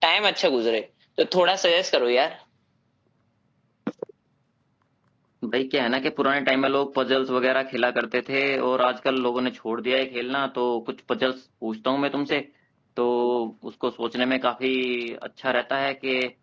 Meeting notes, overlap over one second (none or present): none